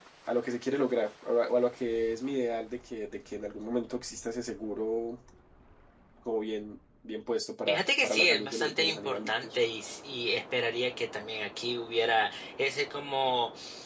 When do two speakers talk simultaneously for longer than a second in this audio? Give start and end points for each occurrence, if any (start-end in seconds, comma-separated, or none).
7.7-9.6